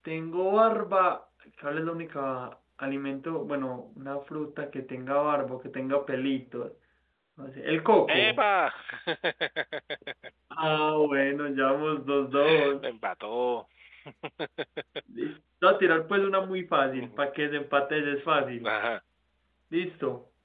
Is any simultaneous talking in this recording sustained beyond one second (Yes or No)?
No